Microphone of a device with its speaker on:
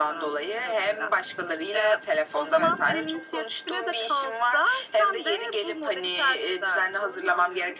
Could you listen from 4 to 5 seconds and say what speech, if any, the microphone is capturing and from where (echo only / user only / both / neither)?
echo only